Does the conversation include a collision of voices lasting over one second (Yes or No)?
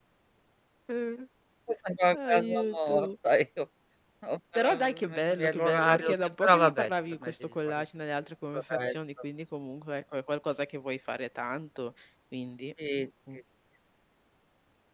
Yes